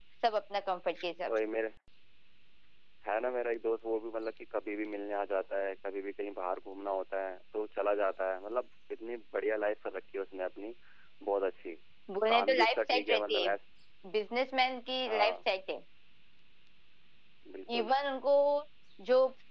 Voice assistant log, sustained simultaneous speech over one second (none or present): present